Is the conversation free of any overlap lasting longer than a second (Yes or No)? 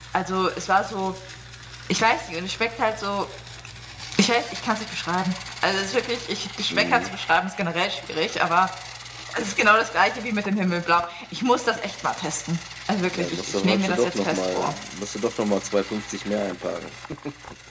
No